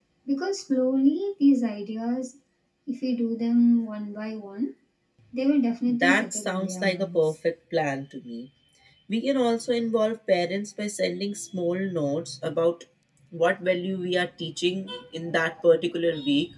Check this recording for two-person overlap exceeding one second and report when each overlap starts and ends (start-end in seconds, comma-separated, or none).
5.9-7.3